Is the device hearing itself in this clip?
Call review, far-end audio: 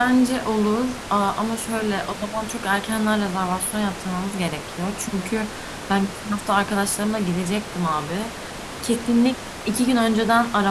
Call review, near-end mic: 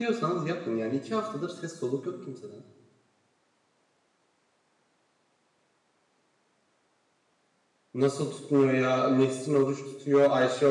No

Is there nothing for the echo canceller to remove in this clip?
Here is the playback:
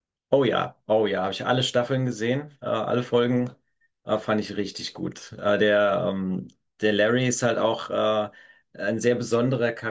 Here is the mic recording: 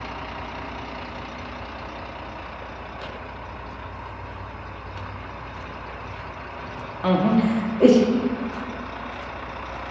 Yes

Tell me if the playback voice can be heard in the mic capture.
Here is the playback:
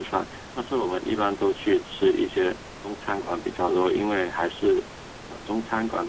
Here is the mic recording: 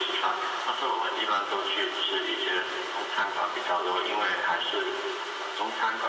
Yes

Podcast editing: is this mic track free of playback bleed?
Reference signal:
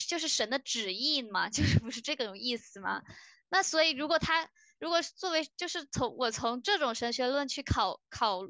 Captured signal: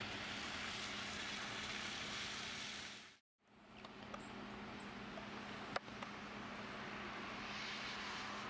Yes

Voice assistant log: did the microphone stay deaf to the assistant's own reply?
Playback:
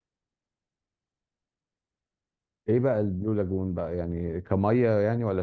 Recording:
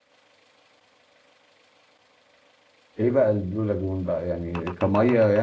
No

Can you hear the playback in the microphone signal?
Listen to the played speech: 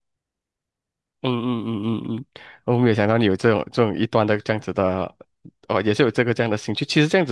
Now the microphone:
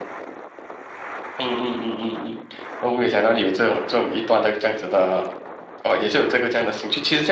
Yes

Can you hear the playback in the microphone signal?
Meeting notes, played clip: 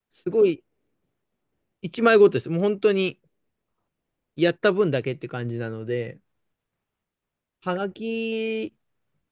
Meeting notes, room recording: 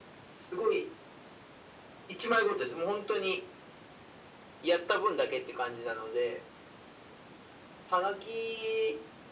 Yes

